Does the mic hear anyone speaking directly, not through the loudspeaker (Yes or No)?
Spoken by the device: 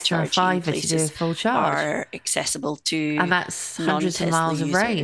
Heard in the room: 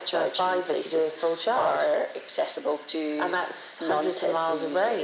No